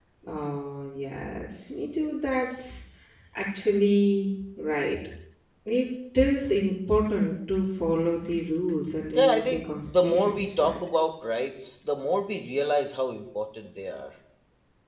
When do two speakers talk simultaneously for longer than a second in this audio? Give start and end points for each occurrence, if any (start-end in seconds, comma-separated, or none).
9.1-10.8